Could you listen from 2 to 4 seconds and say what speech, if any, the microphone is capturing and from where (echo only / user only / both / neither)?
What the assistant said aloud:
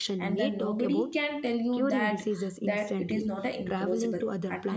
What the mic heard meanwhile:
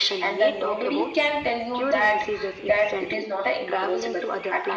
echo only